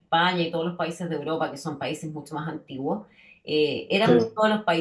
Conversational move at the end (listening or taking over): listening